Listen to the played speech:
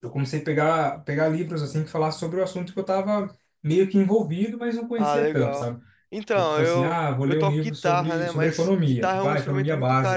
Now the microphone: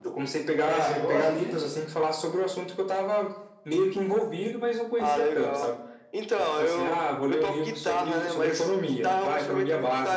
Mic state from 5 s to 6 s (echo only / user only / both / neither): echo only